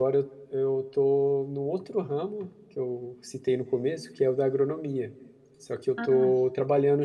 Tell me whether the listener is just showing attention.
Yes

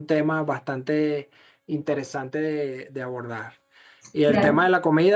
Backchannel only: Yes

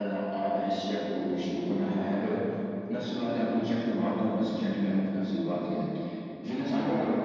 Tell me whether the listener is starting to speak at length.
No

